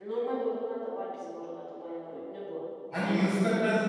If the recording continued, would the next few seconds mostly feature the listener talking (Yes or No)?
Yes